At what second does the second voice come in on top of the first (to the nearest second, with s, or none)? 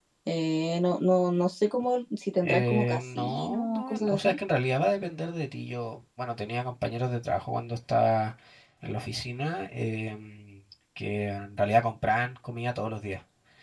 2 s